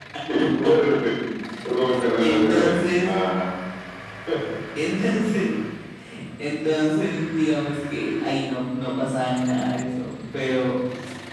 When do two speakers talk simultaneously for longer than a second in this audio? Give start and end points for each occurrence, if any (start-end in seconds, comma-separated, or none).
1.8-3.1